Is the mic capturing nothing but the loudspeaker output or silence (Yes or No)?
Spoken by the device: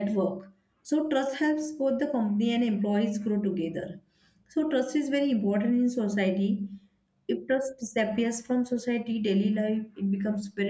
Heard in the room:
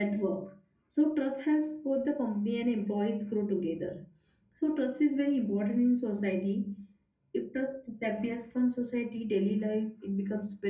Yes